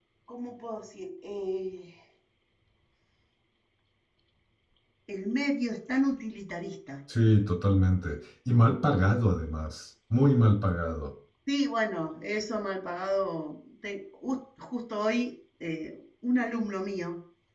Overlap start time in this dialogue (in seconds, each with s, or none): none